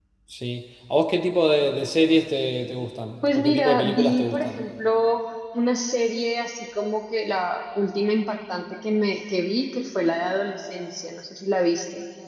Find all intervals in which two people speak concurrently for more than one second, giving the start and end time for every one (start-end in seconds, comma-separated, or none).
3.2-4.6